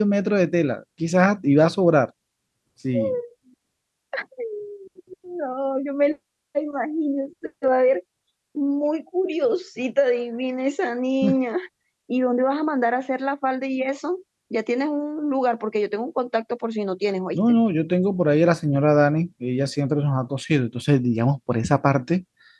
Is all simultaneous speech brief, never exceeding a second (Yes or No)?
Yes